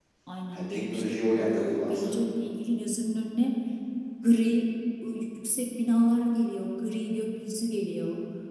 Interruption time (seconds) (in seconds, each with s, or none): 0.5 s